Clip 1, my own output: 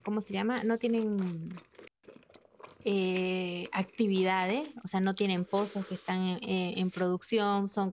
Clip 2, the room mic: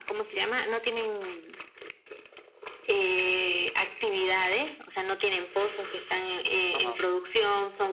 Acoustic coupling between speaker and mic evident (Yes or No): Yes